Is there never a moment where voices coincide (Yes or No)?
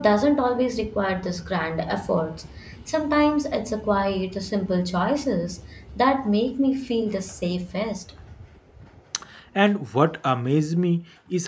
Yes